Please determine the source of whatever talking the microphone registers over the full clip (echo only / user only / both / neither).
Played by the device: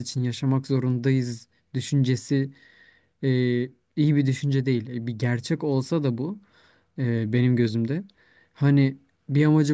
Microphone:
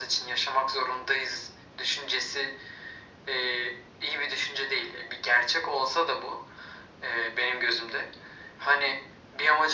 echo only